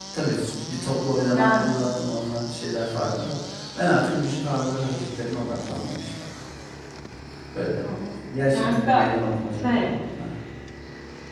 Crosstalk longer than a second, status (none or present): none